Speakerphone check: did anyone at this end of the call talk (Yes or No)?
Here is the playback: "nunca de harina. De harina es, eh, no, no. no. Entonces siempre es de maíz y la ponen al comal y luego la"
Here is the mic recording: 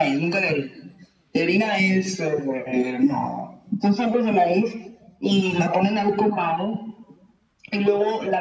No